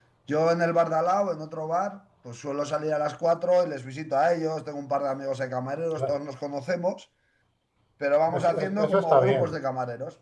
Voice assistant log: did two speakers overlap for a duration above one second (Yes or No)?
Yes